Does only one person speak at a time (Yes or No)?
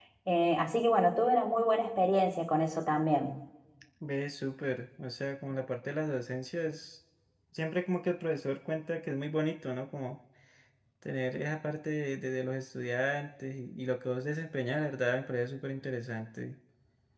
Yes